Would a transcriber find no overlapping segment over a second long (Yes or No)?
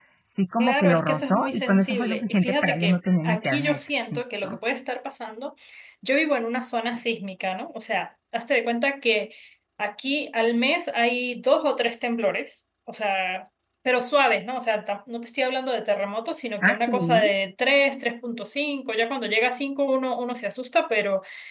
No